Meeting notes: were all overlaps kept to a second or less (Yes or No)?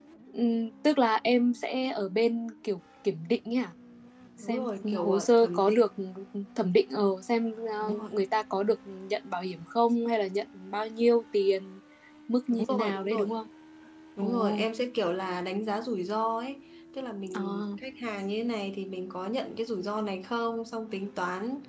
No